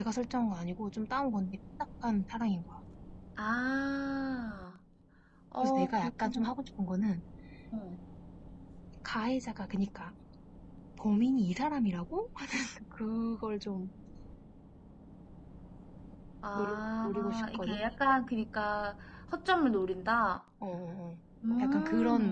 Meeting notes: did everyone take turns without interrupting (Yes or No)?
No